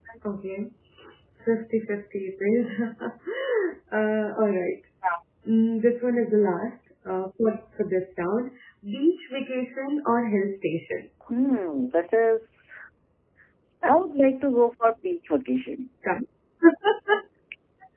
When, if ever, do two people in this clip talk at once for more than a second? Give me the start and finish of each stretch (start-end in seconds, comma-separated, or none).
none